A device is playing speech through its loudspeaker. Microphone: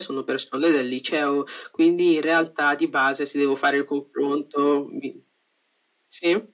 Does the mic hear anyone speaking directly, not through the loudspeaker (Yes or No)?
No